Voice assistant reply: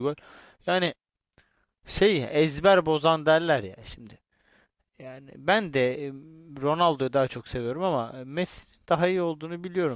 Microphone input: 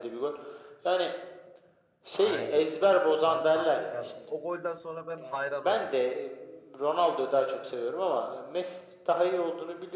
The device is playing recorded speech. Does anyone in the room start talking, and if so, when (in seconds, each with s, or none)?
2.1 s